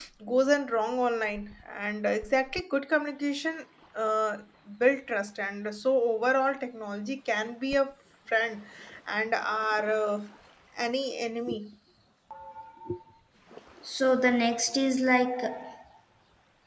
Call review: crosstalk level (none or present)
none